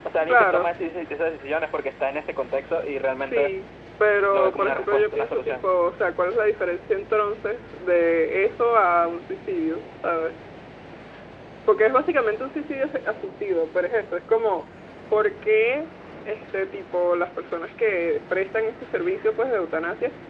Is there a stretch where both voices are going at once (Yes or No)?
Yes